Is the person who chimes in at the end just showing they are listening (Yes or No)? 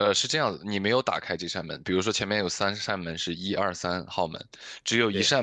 Yes